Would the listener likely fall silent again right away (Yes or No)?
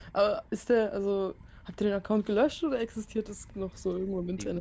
No